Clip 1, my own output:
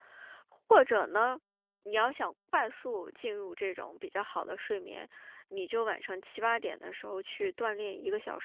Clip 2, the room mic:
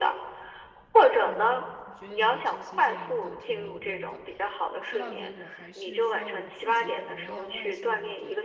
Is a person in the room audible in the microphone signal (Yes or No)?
Yes